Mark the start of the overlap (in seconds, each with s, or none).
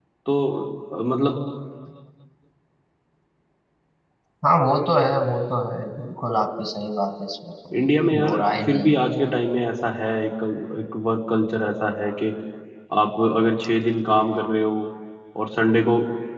7.7 s